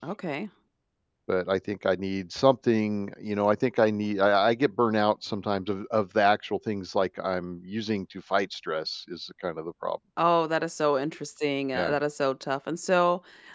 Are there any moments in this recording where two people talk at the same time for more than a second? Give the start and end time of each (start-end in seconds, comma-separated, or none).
none